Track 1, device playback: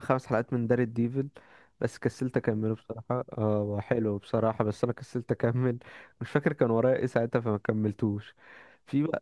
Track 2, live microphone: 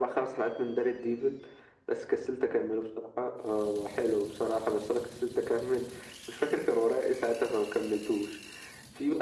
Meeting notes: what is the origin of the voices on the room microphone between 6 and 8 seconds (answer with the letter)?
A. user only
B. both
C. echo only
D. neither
C